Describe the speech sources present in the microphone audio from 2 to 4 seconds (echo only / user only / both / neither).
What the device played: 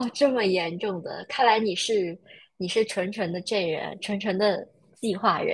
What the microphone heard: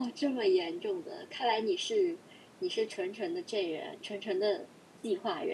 echo only